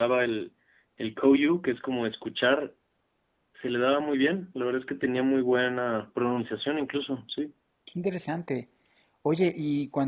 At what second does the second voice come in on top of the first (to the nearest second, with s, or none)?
none